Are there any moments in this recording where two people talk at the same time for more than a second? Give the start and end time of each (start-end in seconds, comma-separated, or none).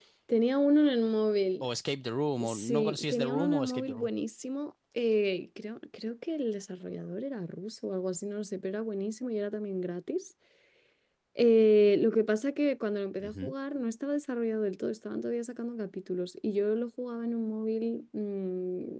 2.4-4.1